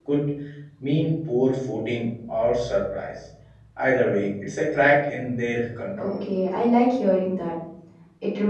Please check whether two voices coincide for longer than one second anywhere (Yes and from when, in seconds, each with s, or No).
No